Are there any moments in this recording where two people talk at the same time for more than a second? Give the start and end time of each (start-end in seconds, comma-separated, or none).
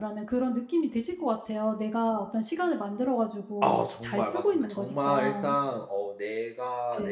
3.6-5.4